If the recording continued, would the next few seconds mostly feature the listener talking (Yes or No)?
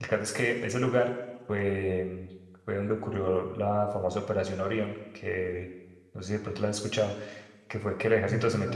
No